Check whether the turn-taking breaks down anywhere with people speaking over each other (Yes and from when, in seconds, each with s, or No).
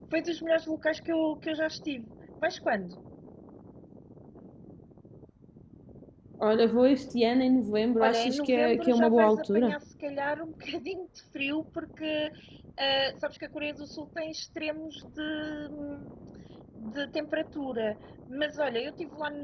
Yes, from 8.0 s